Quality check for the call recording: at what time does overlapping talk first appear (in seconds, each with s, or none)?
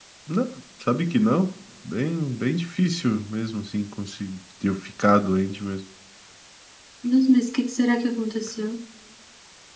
none